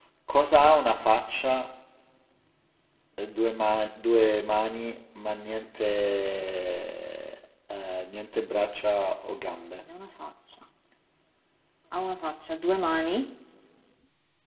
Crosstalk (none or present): none